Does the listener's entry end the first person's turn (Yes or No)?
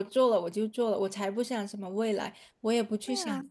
No